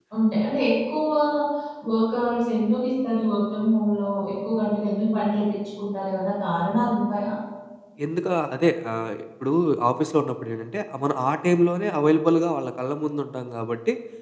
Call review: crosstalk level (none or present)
none